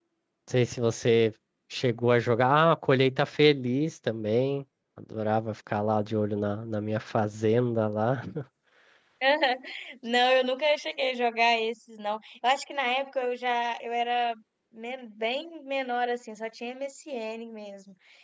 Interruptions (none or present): none